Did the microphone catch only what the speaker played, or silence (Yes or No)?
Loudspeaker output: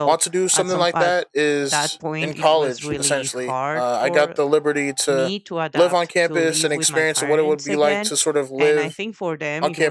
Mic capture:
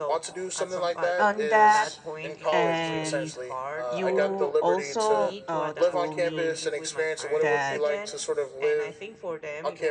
No